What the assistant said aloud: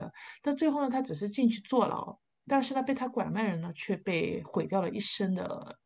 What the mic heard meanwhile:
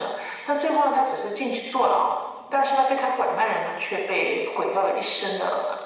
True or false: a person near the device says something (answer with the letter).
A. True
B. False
B